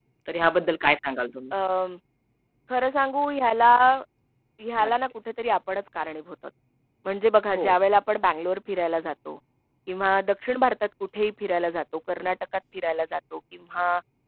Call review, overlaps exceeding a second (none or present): none